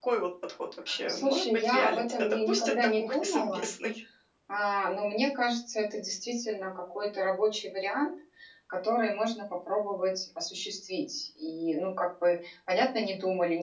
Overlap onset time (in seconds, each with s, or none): 1.1 s